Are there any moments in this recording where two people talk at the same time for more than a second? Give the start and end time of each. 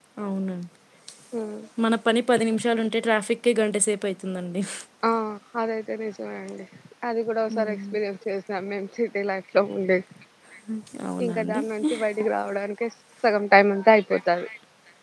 none

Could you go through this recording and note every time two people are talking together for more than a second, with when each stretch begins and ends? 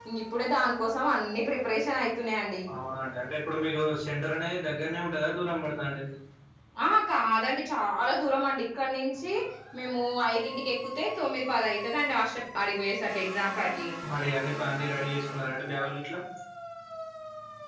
none

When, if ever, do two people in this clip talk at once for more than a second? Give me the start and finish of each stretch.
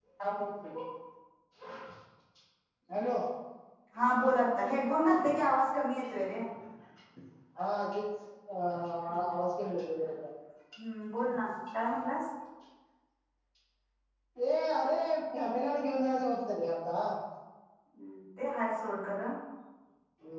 none

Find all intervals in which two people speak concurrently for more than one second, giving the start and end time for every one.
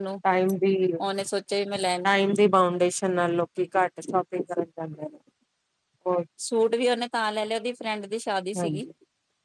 none

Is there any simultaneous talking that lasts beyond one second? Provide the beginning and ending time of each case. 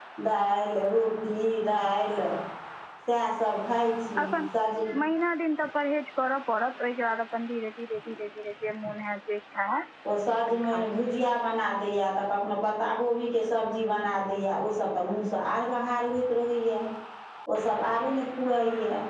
none

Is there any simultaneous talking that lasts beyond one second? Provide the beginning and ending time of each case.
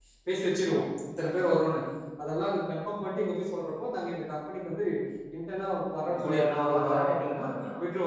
6.1-7.4

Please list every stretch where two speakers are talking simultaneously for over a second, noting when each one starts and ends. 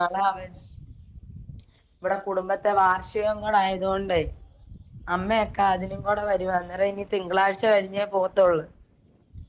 none

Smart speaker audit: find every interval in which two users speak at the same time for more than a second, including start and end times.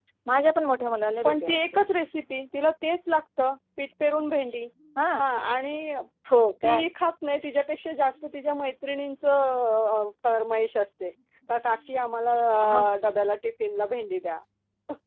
none

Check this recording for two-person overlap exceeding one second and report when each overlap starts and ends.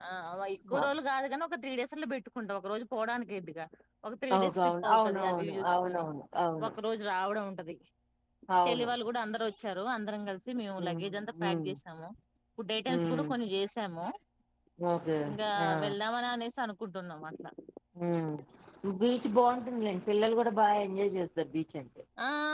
4.4-6.0

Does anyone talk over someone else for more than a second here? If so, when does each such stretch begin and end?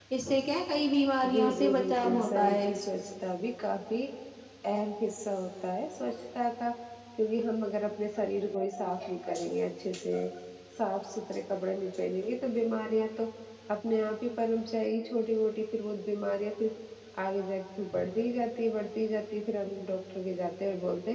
1.3-2.6

